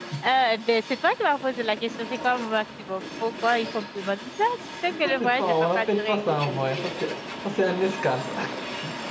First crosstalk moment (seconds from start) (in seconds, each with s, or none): 4.9 s